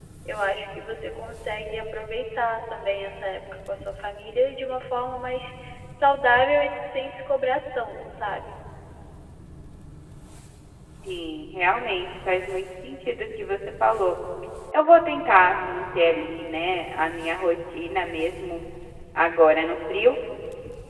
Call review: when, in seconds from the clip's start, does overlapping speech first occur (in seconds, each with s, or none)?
none